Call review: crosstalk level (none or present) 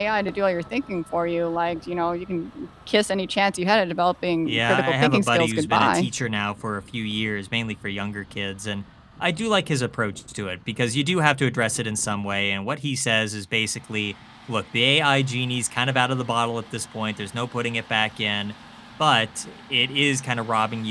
present